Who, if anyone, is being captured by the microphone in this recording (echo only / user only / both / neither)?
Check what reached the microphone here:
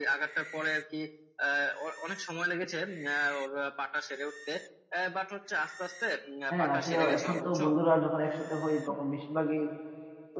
both